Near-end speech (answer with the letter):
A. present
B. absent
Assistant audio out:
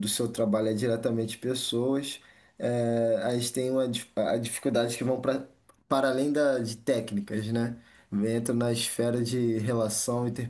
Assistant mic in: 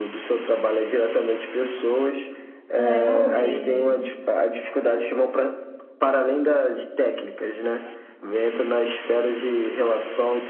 A